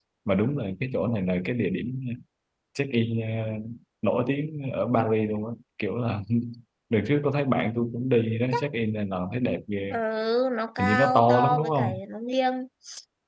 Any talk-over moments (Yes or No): Yes